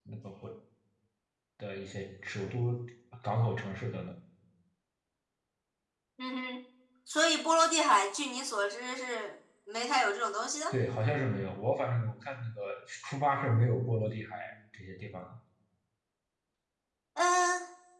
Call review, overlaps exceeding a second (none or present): none